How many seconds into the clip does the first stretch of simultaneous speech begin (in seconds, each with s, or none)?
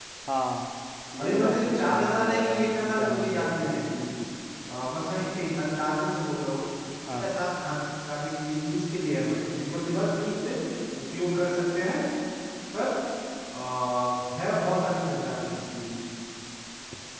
1.2 s